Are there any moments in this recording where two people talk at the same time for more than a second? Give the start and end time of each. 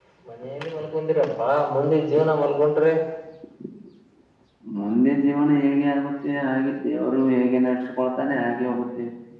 none

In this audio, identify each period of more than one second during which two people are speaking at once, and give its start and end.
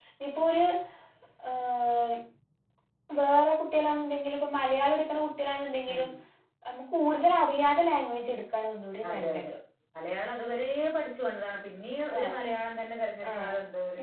none

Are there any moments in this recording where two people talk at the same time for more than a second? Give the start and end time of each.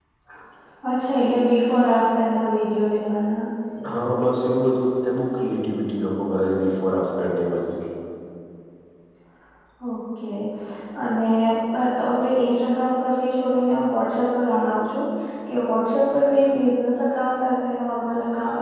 none

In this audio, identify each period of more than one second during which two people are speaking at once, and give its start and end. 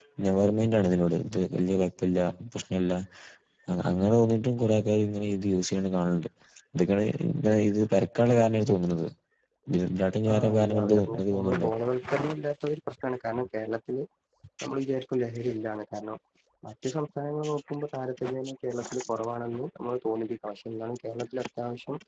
10.3-11.7

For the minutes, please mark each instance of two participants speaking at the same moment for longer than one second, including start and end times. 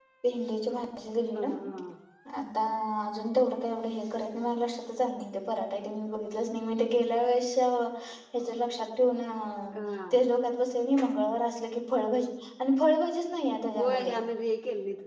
none

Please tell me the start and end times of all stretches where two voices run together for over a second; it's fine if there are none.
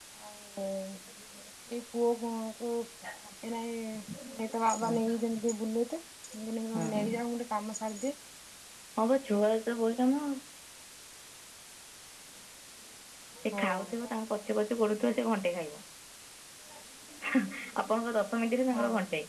none

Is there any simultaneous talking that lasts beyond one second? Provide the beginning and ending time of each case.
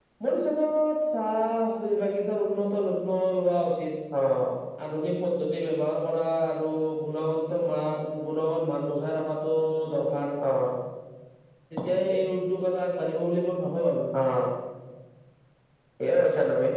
none

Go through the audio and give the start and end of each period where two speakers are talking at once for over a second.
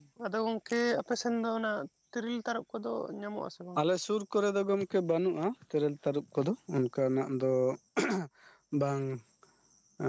none

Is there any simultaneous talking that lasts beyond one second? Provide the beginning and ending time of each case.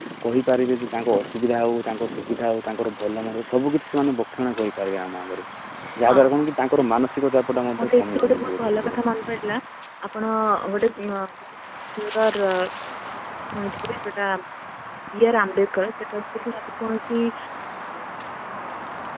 7.8-9.0

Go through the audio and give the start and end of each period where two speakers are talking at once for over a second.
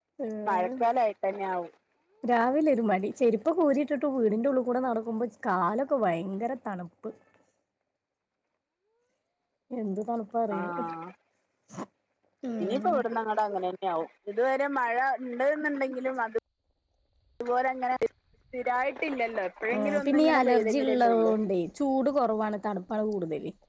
19.7-21.3

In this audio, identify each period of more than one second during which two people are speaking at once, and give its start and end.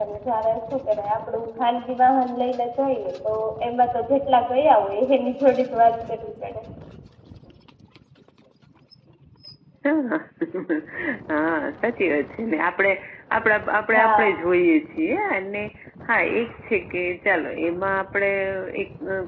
none

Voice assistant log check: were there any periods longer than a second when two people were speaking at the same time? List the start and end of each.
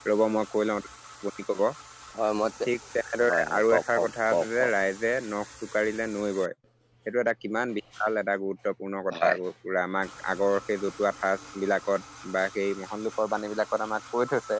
3.5-4.7

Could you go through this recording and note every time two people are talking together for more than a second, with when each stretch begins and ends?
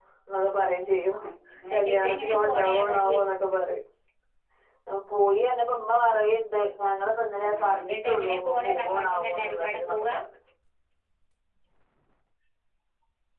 1.7-3.2, 7.4-10.1

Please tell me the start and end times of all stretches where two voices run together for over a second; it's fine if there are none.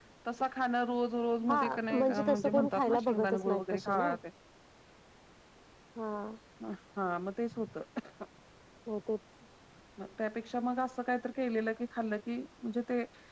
1.5-4.1

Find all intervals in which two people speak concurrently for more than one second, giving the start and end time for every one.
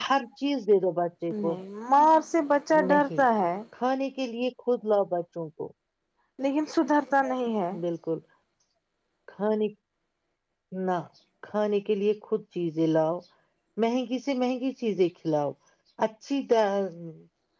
none

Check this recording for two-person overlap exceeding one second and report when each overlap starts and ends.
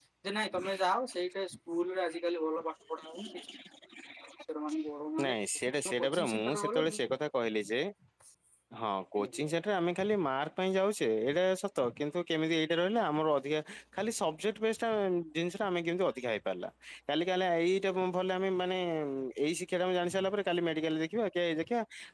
5.2-7.0

